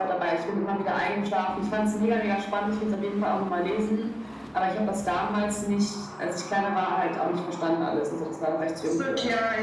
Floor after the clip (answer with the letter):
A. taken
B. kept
A